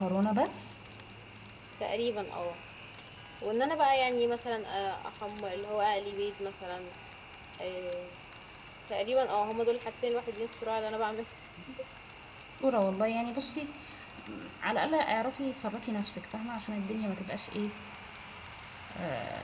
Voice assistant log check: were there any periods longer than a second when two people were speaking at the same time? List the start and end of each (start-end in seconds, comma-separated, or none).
none